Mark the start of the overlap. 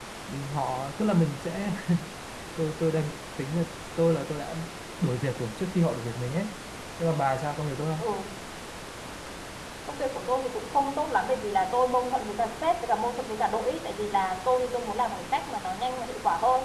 none

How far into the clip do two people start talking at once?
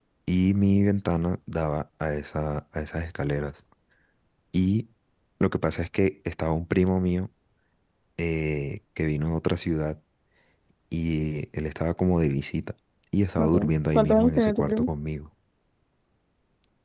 13.4 s

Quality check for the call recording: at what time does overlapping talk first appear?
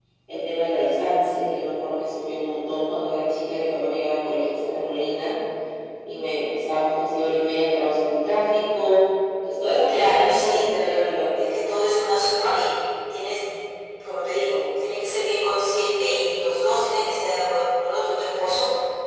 9.9 s

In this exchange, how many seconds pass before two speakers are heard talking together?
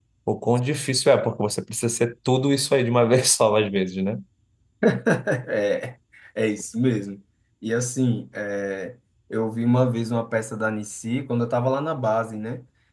none

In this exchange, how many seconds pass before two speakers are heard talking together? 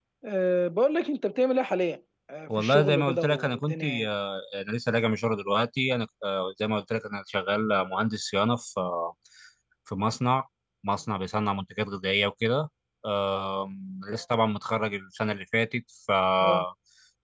2.5 s

